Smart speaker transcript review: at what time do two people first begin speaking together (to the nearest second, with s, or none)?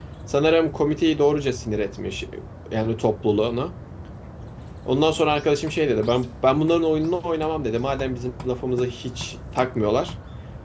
none